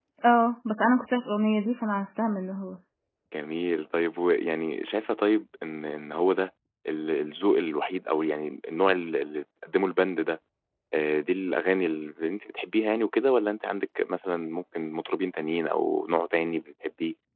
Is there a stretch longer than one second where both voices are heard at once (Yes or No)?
No